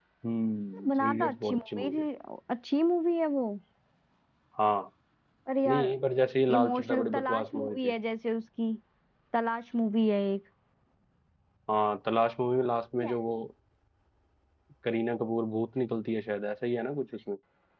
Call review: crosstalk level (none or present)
present